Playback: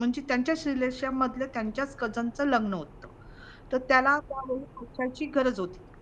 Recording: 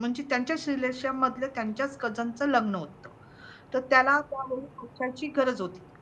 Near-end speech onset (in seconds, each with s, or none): none